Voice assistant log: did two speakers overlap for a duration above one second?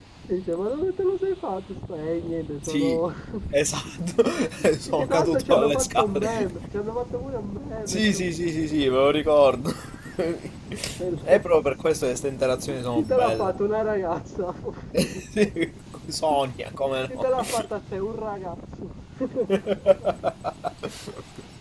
Yes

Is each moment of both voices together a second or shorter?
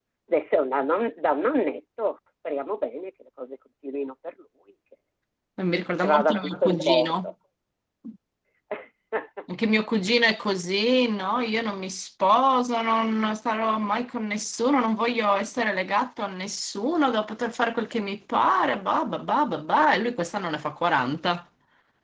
No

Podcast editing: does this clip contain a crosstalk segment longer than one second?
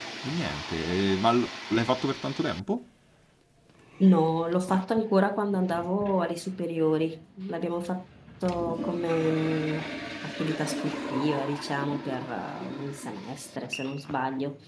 No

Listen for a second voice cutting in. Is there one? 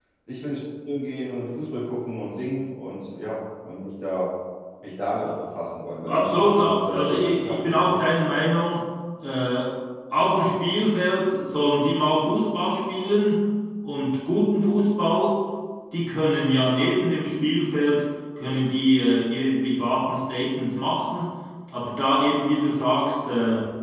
Yes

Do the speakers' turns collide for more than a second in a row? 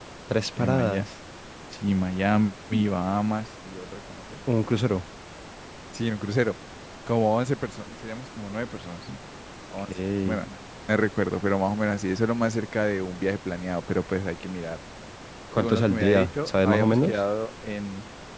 Yes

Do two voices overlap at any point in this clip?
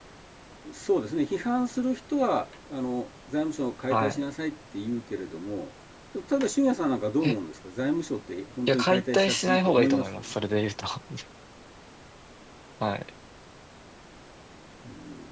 Yes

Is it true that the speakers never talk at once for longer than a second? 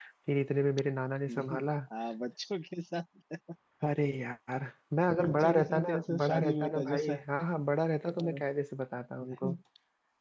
No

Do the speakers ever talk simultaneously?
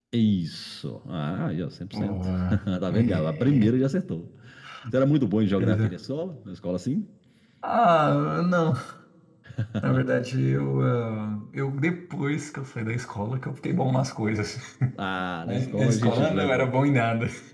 Yes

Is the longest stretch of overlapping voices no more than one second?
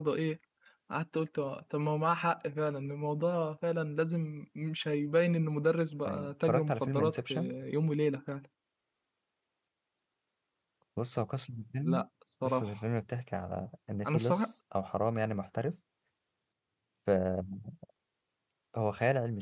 No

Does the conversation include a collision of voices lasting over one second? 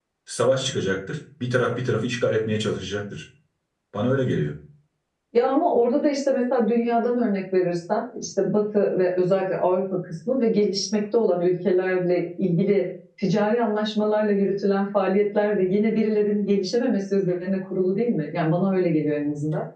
No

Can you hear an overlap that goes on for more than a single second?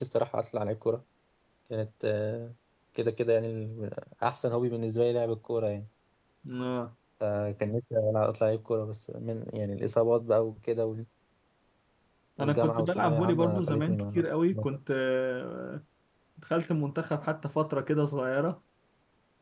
Yes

